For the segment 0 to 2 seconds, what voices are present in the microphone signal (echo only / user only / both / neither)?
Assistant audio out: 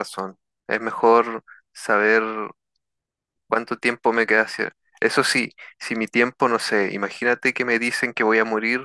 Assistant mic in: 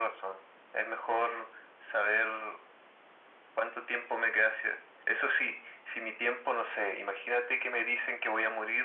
echo only